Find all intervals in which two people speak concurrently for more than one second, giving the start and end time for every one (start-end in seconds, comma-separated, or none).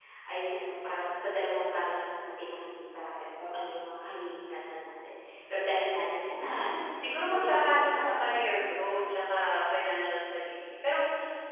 6.4-8.4